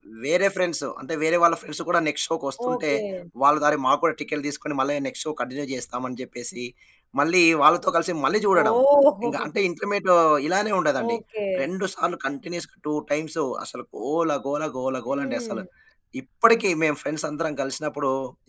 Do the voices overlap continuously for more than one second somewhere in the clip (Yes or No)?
No